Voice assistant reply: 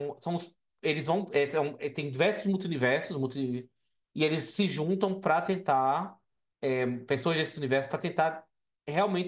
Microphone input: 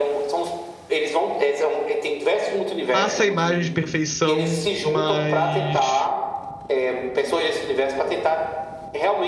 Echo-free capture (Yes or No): No